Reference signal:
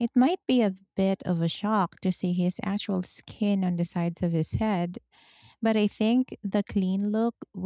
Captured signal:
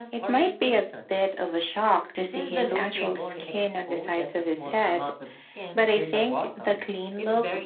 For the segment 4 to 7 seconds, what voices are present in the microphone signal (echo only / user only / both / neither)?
both